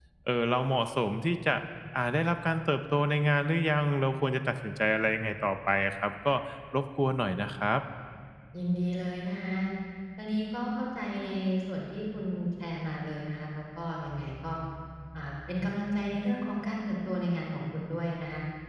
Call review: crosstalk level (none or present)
none